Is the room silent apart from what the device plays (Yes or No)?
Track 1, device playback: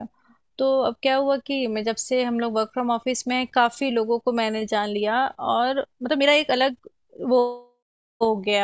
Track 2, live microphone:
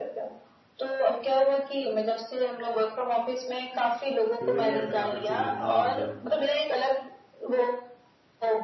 No